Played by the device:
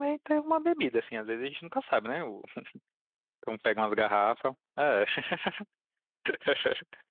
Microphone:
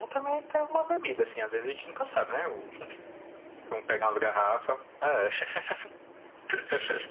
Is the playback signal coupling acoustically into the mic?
Yes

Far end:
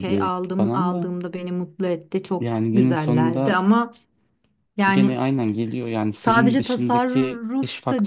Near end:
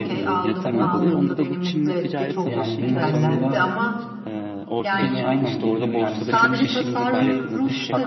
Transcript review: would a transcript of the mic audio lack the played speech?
No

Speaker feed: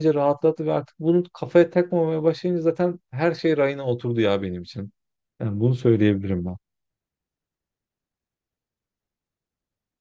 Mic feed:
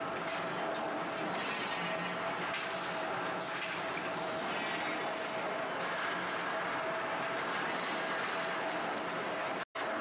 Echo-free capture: Yes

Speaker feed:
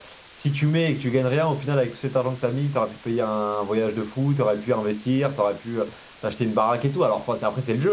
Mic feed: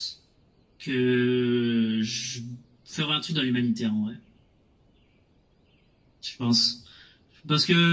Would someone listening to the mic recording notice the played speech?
No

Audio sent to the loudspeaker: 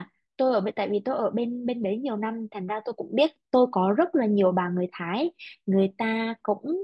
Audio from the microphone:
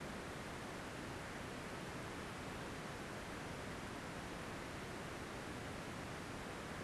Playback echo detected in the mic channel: No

